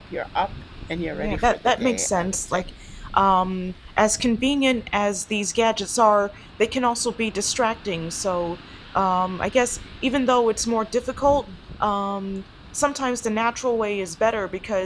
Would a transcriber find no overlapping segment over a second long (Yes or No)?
No